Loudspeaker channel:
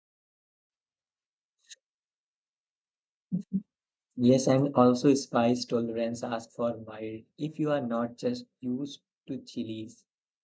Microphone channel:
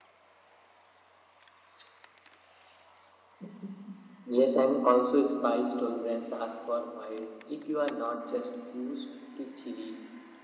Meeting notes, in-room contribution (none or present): none